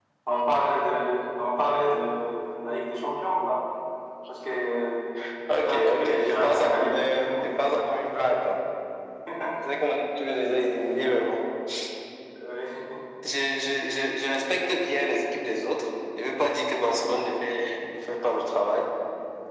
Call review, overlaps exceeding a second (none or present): present